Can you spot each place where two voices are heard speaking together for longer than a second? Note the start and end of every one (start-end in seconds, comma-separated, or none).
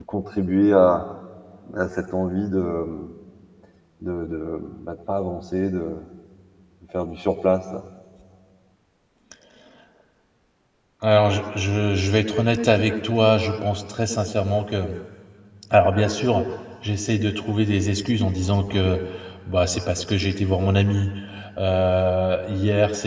none